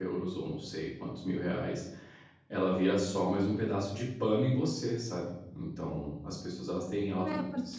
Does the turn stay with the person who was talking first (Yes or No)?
No